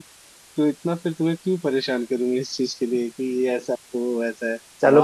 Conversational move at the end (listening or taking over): taking over